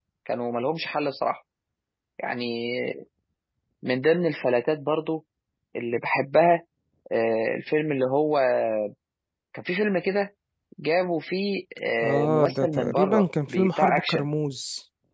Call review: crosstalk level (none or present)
present